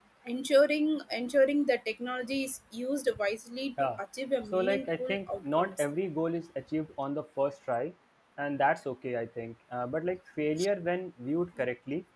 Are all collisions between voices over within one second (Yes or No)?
No